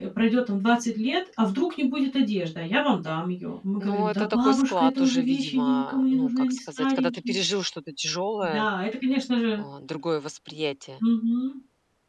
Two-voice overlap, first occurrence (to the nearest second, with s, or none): 4 s